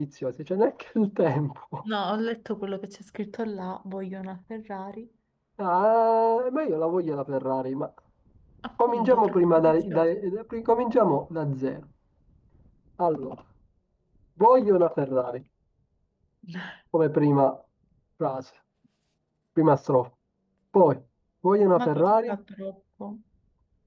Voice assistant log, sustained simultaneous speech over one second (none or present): present